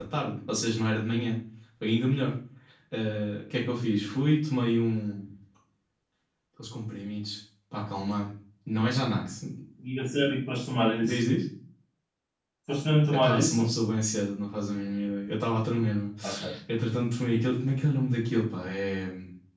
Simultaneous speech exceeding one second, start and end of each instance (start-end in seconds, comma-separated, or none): none